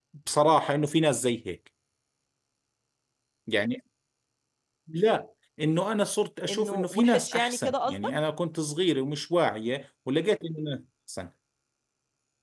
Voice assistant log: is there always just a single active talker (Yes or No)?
No